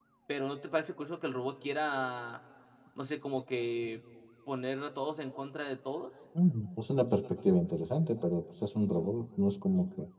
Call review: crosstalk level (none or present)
none